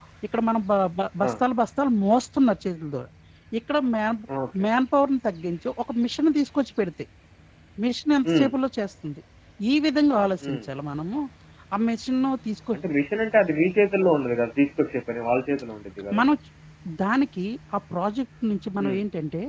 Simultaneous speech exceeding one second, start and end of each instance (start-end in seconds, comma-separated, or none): none